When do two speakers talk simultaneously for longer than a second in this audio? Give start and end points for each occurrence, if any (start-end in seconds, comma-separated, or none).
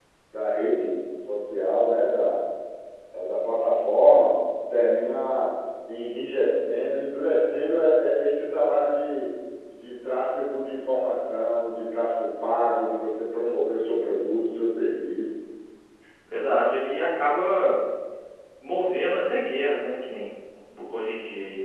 none